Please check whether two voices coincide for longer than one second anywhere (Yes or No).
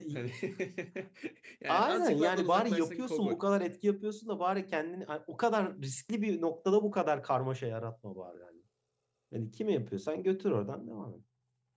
Yes